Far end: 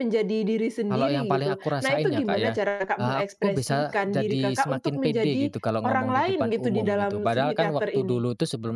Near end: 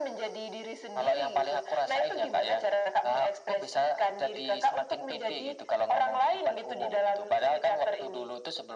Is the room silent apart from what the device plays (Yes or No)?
Yes